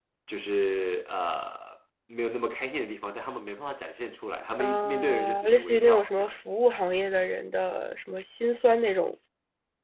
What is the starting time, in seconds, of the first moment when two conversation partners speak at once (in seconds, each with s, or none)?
4.6 s